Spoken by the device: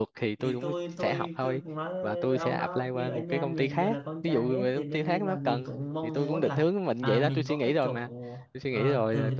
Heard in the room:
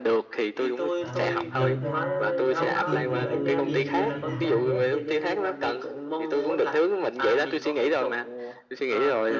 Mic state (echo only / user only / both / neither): both